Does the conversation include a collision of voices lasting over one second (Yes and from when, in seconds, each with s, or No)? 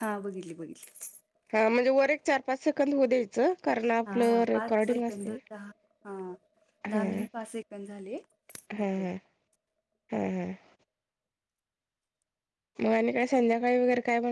Yes, from 4.1 s